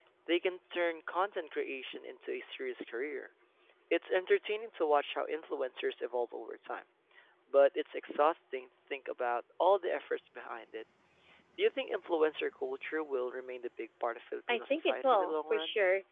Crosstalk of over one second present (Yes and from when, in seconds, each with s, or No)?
Yes, from 14.5 s